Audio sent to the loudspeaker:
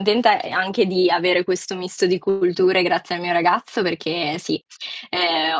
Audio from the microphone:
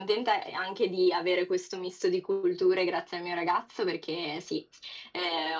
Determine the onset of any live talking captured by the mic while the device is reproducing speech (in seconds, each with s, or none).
none